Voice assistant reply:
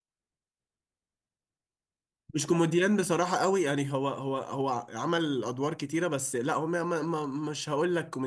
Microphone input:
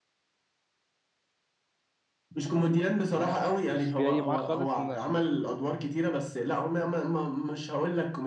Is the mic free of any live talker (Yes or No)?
No